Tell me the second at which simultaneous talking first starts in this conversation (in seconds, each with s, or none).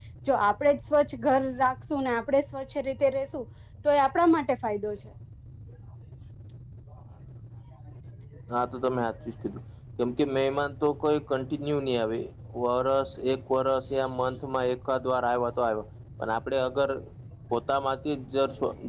none